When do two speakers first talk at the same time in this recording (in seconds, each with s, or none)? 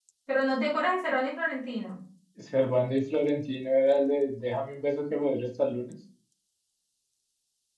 none